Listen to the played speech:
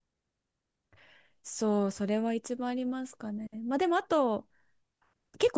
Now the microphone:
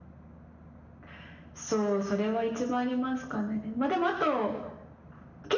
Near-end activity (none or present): none